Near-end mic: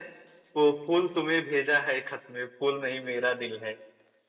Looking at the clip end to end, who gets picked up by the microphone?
echo only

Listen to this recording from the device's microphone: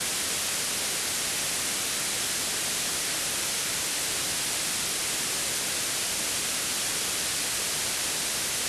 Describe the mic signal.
neither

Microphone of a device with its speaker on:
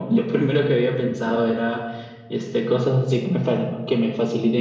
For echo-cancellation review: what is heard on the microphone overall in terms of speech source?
echo only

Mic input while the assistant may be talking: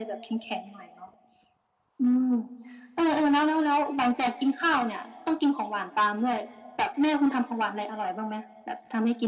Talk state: echo only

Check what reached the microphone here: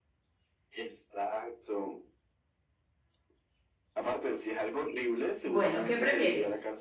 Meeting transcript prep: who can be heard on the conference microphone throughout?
both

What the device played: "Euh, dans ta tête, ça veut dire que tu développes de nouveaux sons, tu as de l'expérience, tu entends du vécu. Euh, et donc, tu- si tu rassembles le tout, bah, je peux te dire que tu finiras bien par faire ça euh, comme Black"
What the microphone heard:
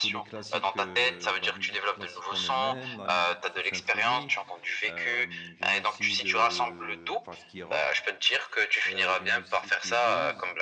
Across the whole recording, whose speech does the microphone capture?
both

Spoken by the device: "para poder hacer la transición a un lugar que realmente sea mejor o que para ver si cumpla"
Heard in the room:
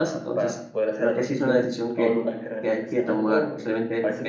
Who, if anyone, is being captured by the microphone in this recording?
both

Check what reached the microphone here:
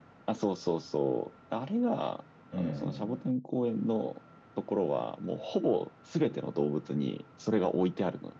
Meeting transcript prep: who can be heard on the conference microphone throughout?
both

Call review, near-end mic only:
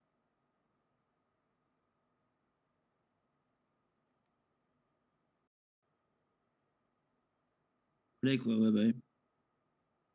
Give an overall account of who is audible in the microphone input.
user only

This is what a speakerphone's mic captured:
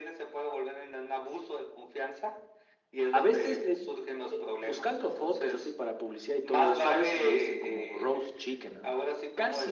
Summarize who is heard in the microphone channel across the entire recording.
echo only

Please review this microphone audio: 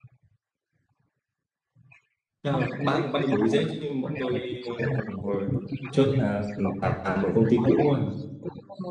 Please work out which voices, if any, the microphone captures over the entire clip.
both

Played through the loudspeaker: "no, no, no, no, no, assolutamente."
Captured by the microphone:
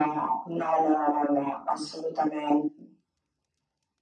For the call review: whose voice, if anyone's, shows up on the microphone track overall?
echo only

